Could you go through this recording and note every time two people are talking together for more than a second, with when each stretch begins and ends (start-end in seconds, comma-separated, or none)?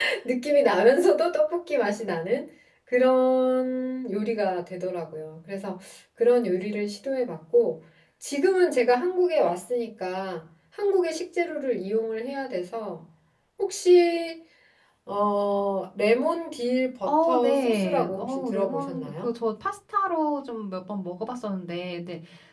17.0-19.3